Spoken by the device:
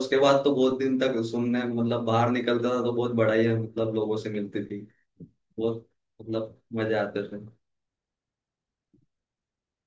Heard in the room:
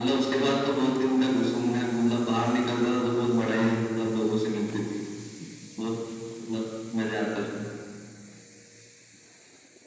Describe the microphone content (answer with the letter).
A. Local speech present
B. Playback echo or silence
B